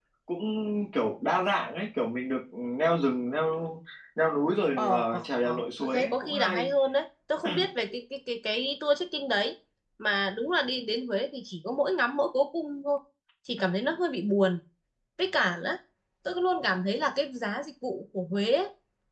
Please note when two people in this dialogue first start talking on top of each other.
4.8 s

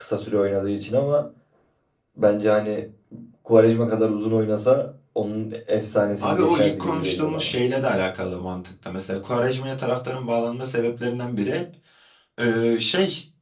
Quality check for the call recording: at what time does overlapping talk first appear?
6.2 s

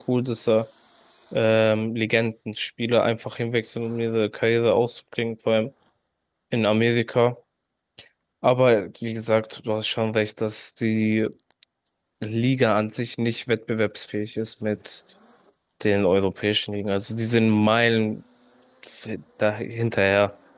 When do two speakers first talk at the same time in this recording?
none

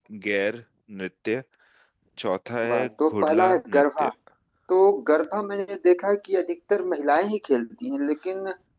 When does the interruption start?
2.7 s

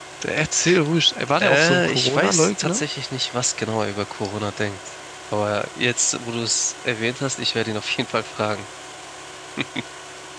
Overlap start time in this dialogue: 1.4 s

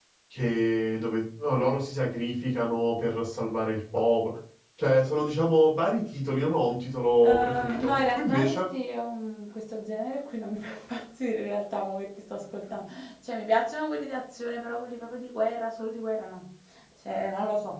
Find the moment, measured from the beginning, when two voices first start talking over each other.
7.2 s

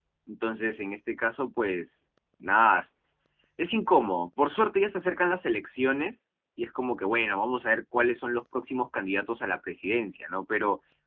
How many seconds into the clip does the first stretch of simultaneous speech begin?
none

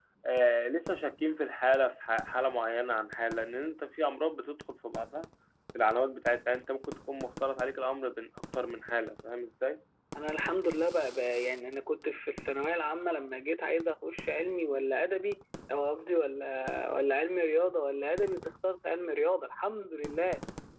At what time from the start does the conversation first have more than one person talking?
none

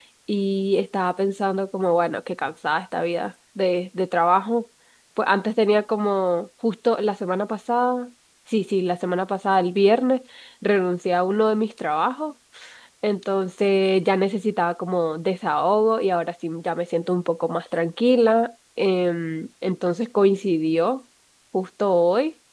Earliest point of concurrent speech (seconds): none

